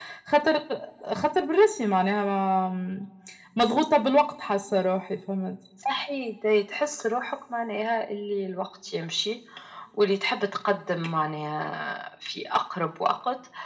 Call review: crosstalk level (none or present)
none